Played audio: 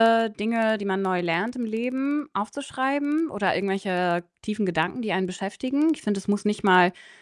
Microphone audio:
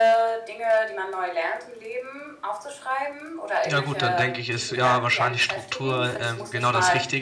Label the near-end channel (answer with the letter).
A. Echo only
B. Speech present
B